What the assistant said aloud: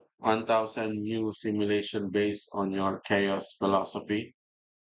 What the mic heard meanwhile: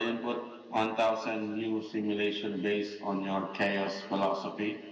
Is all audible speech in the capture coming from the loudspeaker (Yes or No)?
Yes